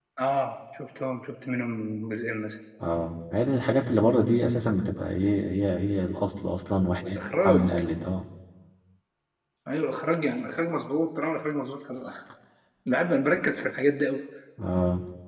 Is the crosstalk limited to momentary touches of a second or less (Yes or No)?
Yes